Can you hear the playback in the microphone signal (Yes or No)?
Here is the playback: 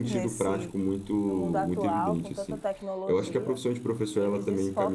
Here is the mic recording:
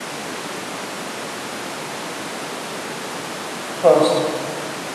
No